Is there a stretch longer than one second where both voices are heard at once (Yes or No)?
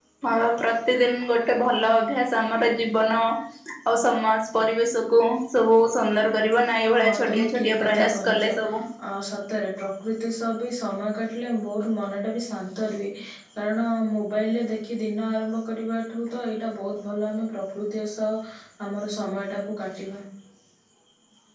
Yes